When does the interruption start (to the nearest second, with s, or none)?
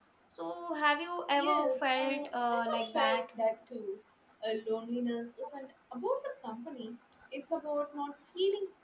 1 s